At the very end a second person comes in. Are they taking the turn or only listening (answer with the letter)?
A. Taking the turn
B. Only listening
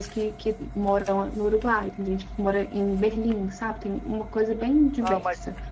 A